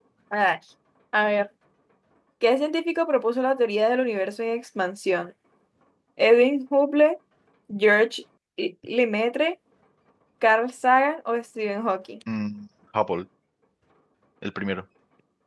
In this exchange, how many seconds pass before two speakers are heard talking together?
none

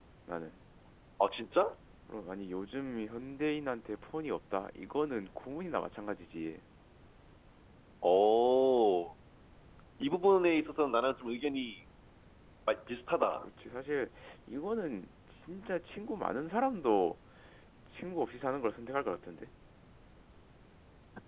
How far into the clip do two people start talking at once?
none

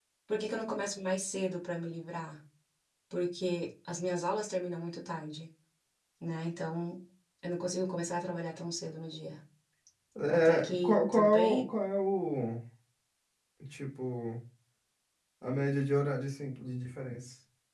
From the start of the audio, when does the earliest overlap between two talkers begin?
10.3 s

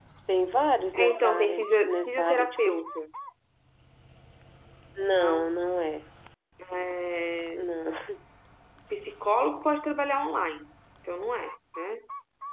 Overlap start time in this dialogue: 0.9 s

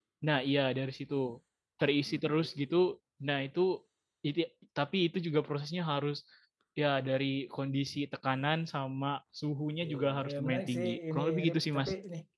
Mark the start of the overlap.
9.8 s

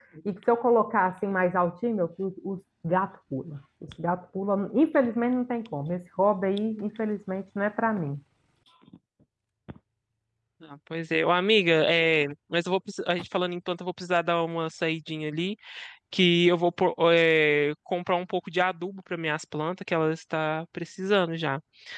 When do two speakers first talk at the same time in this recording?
none

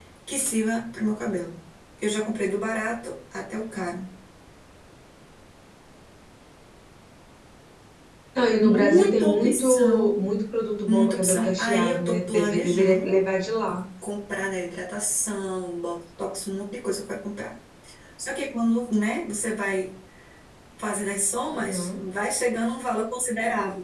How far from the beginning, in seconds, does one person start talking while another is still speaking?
8.6 s

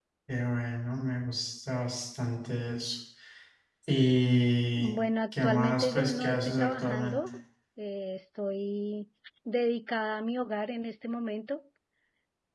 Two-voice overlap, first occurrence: 5.3 s

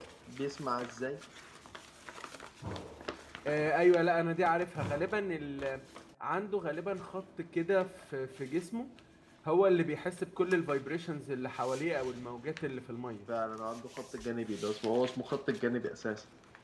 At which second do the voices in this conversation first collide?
none

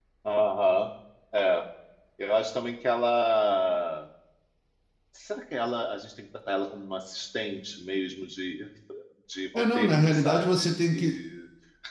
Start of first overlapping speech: 9.6 s

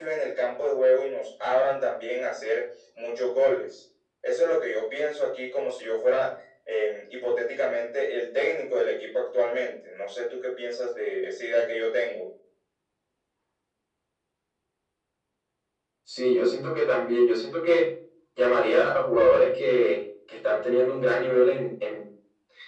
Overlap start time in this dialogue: none

